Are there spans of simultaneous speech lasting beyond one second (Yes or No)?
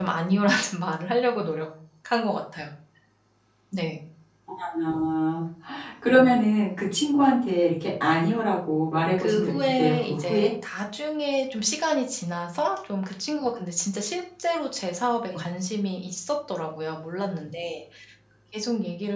Yes